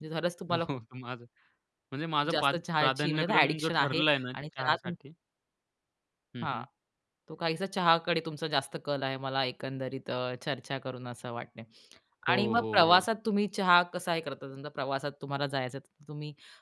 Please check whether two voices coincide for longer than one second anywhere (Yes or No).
Yes